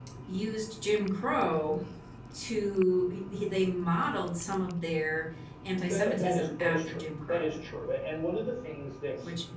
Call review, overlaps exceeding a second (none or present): present